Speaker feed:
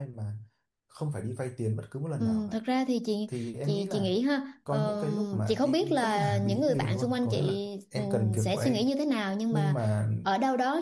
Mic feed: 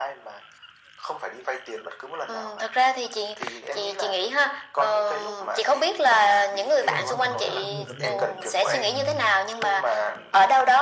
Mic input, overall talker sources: both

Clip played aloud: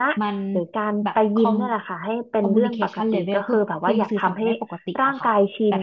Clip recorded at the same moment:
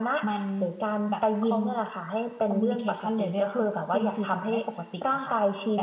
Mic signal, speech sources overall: echo only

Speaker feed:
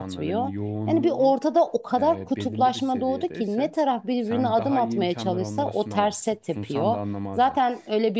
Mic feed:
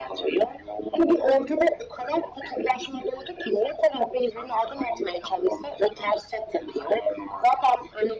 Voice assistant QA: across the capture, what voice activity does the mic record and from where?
echo only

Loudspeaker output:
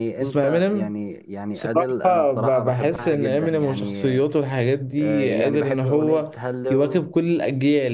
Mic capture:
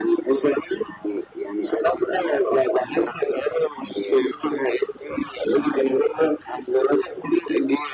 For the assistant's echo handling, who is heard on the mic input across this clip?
echo only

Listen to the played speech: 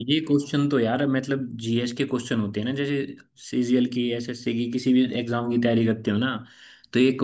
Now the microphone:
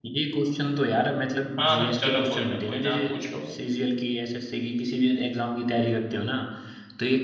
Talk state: both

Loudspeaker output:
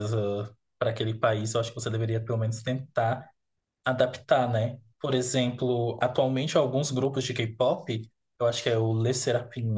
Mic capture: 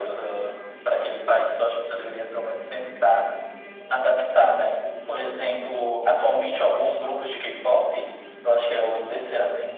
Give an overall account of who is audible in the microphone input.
echo only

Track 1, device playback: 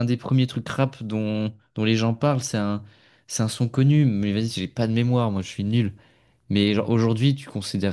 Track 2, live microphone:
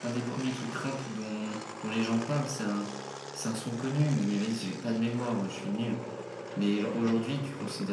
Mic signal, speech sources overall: echo only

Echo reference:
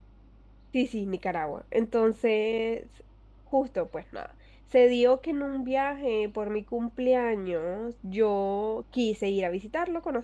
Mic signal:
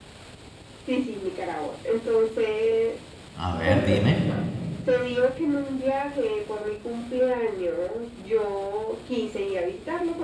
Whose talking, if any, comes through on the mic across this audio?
both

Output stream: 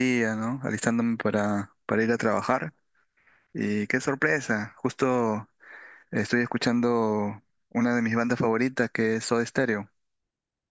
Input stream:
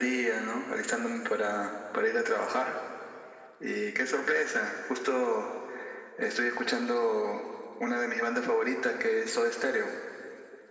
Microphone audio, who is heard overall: echo only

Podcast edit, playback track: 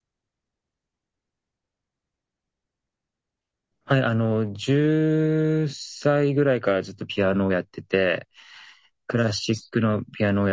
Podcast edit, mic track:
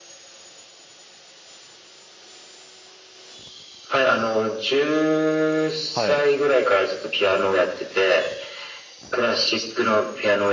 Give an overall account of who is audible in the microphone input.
both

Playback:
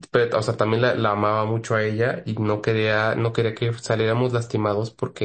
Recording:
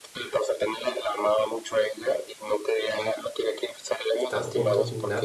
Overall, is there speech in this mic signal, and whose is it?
both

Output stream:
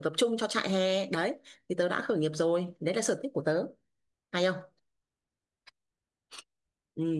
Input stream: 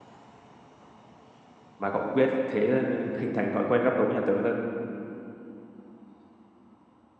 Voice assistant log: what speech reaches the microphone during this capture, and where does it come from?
user only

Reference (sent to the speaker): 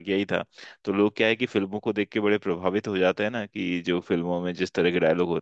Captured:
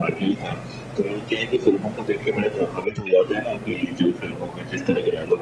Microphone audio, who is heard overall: echo only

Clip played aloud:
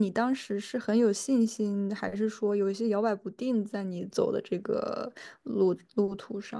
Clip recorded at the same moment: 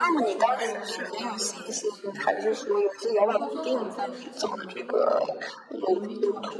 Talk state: both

